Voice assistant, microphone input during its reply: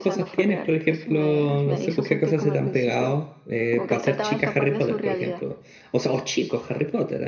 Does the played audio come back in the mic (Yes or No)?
Yes